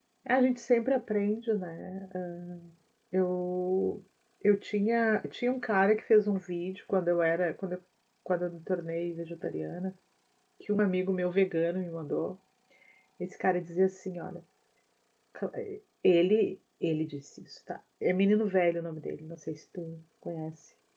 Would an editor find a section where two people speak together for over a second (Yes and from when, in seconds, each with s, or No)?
No